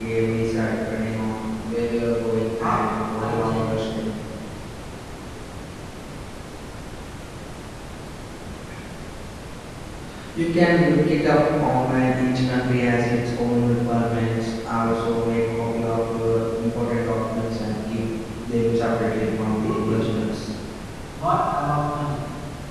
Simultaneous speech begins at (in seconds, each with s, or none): 2.6 s